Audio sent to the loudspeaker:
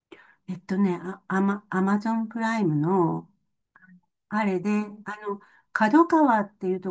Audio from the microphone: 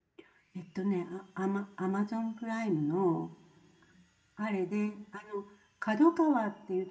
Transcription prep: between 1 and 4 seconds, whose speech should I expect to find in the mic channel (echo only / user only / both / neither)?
echo only